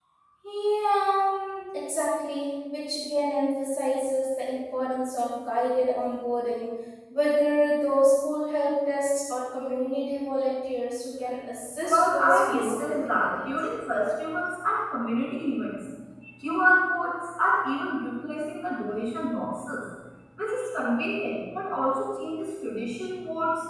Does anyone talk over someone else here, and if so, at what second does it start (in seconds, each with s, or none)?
11.8 s